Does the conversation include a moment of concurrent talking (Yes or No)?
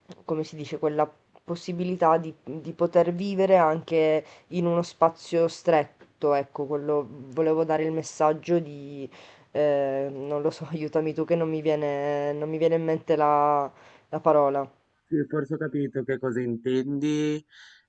No